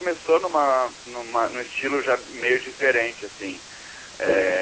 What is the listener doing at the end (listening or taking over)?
listening